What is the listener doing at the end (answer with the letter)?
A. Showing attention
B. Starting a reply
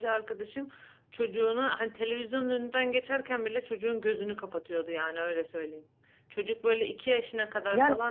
A